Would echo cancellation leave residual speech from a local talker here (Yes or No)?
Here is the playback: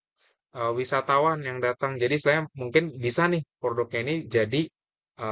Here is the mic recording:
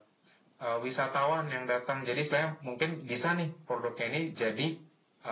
No